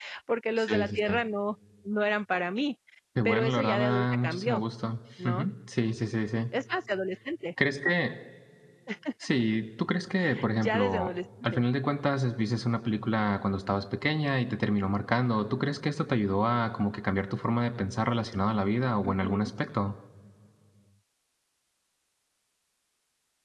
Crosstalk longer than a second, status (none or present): present